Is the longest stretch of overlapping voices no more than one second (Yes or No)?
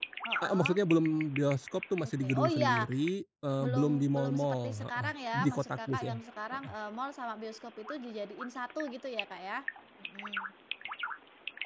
No